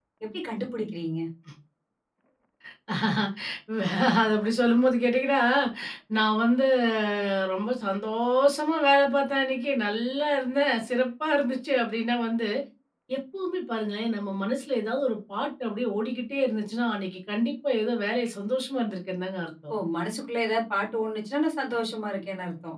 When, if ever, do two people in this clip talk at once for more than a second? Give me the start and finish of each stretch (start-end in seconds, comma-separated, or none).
none